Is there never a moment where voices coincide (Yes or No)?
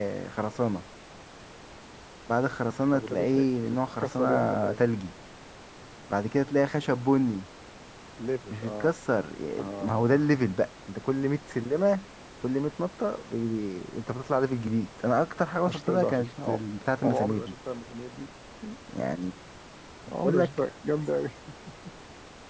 No